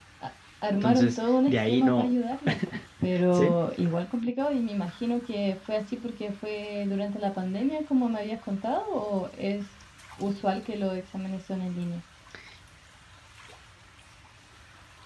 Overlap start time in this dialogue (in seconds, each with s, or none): 0.8 s